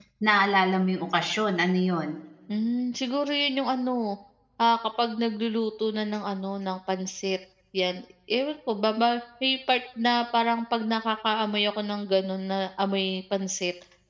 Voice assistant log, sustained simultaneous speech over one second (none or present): none